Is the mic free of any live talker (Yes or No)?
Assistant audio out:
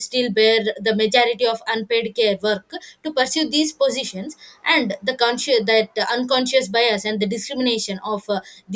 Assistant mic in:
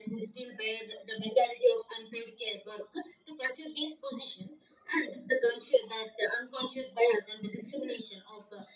Yes